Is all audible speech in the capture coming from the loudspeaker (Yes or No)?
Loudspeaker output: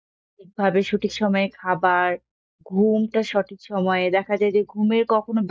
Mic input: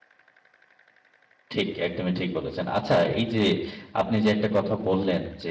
No